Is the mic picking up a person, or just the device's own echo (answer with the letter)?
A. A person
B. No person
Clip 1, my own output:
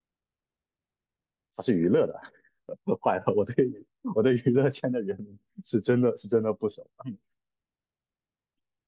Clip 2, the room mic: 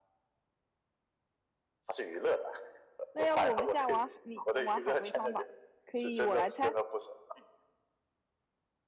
A